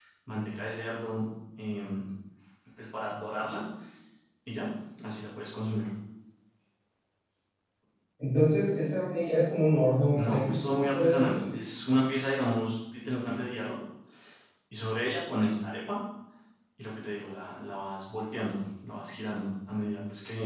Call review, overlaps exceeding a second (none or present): present